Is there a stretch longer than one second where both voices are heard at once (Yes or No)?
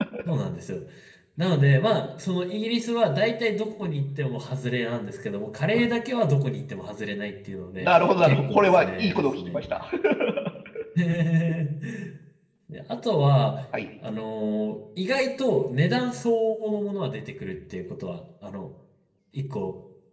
Yes